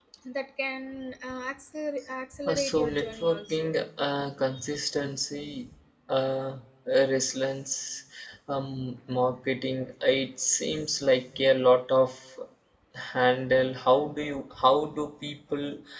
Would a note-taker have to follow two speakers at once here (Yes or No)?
Yes